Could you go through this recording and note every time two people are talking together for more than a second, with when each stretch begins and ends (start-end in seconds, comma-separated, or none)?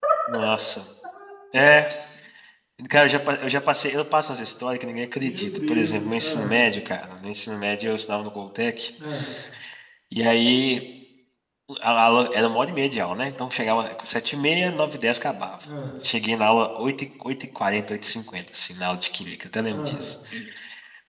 5.2-6.5